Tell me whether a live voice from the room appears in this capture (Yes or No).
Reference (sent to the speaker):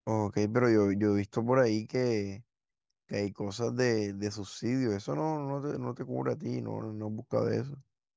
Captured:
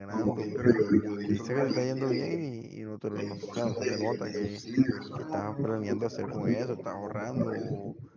Yes